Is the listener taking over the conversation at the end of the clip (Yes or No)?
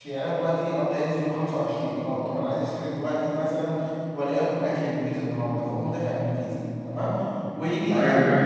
Yes